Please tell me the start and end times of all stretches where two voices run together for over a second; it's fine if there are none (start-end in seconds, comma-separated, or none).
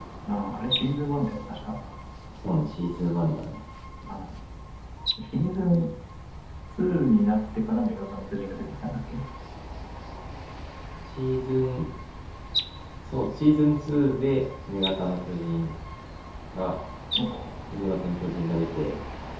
none